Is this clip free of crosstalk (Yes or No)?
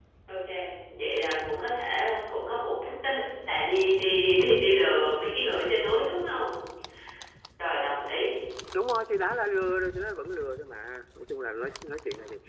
Yes